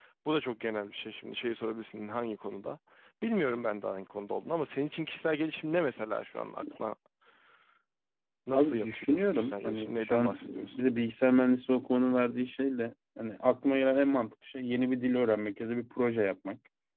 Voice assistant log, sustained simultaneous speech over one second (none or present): present